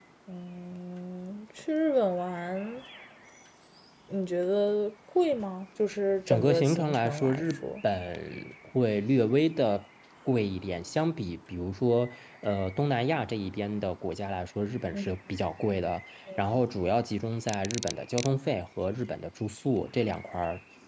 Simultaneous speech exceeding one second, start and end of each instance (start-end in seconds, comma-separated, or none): 6.3-7.7